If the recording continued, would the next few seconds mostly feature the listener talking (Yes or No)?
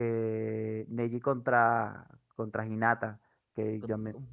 No